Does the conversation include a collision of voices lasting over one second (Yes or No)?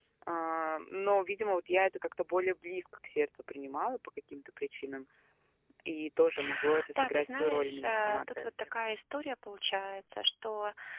Yes